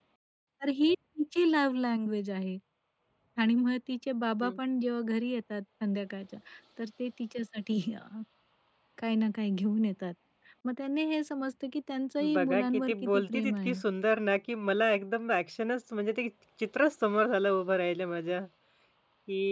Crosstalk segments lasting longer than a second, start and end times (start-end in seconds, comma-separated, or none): 12.3-13.8